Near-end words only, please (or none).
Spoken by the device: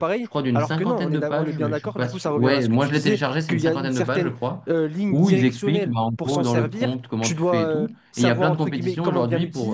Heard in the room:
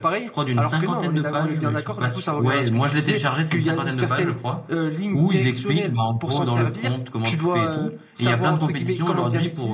none